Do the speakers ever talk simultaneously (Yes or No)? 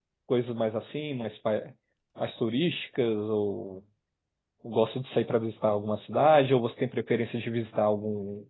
No